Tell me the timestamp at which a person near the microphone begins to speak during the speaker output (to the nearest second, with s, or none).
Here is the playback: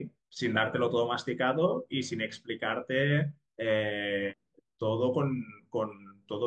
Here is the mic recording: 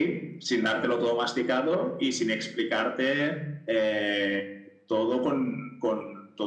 none